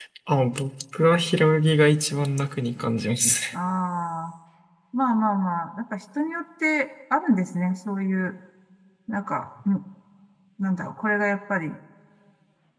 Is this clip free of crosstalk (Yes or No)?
Yes